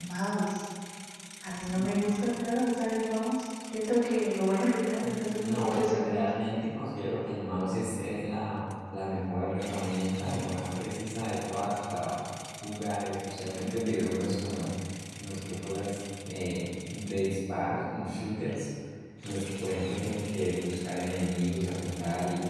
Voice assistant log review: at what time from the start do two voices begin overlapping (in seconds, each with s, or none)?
5.0 s